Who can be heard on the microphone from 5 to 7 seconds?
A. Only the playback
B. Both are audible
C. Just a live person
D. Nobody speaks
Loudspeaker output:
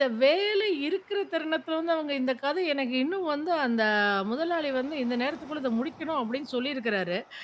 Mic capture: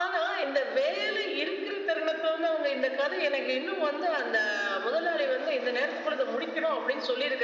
A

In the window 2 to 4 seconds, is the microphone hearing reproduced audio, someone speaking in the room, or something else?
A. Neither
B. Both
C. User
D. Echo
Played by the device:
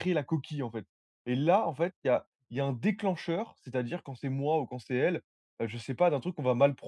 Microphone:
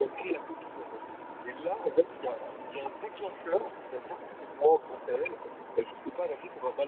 D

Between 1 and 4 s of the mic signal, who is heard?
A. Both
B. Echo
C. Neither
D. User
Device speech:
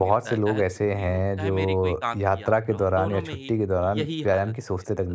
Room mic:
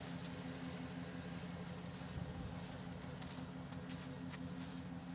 C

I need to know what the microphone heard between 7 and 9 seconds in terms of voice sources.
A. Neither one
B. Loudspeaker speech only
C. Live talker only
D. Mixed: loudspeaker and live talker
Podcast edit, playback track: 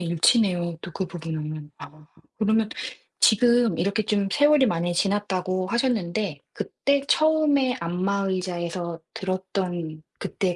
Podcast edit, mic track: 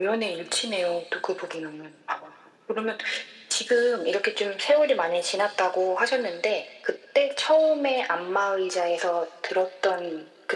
B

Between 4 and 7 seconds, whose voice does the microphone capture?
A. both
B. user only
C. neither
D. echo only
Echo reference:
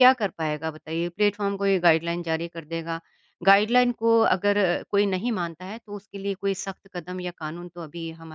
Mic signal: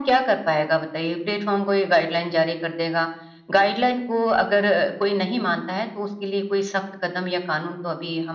D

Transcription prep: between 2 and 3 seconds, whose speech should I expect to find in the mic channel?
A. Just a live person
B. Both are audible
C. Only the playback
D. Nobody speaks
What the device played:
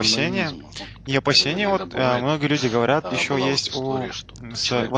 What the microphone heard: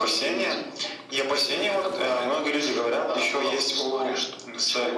C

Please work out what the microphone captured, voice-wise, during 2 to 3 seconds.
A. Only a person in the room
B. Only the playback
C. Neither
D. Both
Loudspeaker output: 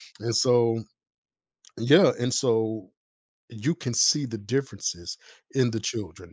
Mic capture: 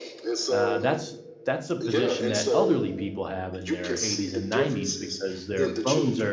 D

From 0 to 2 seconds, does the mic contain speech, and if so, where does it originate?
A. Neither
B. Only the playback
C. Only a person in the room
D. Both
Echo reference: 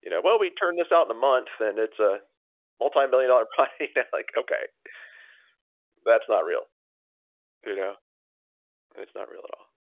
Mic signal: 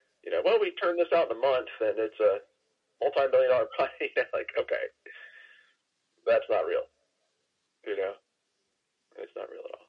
B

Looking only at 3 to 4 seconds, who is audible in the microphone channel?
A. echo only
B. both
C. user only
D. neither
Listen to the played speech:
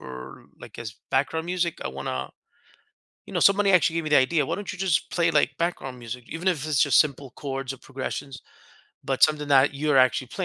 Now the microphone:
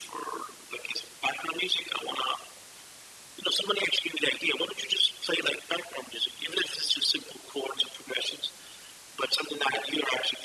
A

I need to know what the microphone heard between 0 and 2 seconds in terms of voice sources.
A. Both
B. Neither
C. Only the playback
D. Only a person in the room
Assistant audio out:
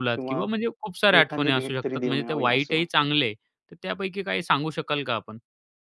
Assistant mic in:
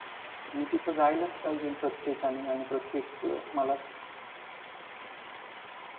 D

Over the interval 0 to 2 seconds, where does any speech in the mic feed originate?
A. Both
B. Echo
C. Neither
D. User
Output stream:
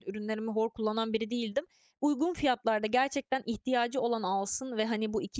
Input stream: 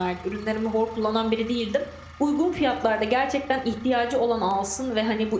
B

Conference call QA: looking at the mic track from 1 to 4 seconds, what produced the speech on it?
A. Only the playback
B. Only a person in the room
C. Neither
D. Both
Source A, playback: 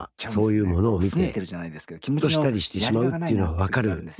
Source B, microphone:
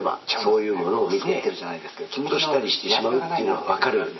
A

